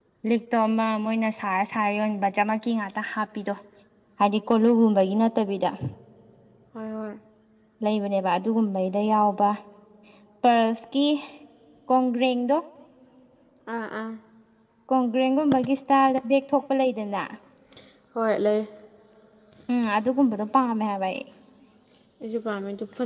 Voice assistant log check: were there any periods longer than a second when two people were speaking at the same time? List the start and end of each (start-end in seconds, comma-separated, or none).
none